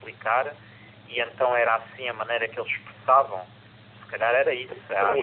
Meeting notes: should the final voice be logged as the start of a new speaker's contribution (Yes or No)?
Yes